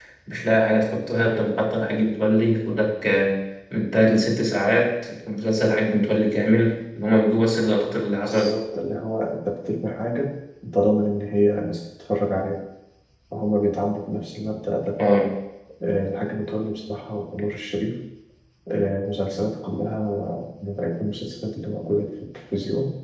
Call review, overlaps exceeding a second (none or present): none